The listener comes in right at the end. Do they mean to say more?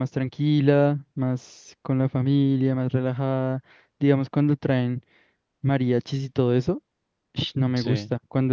No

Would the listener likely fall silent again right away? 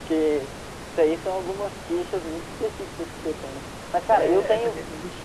No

